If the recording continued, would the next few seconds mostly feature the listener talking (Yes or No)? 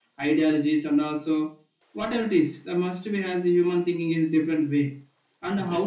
No